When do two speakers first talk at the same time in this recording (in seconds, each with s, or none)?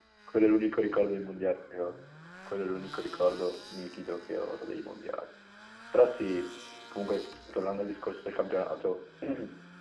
none